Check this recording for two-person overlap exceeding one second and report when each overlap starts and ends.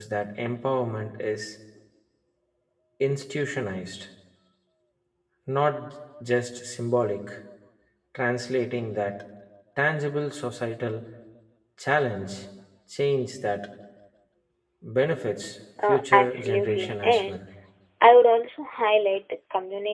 15.8-17.4

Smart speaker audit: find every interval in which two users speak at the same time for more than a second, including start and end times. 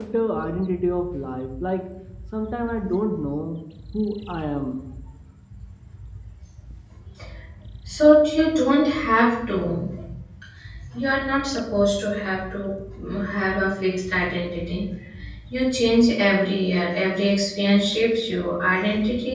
none

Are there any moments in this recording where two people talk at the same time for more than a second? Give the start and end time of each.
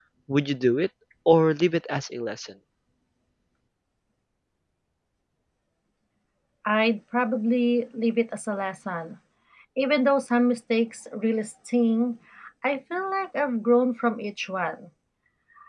none

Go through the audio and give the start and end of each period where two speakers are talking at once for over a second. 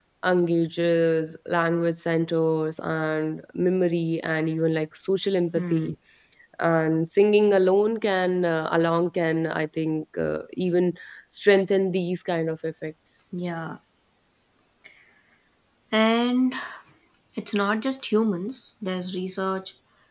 none

